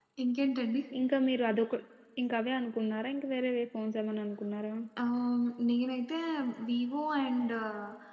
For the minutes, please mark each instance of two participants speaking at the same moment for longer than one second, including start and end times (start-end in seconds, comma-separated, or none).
none